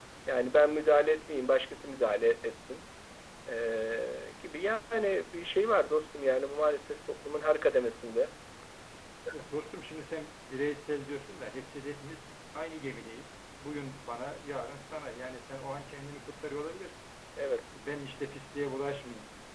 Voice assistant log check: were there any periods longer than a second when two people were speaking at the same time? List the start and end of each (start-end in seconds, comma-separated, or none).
none